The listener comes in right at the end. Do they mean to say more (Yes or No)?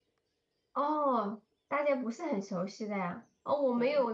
No